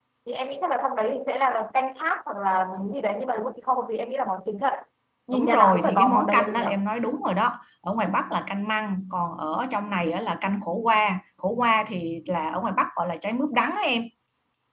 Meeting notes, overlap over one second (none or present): present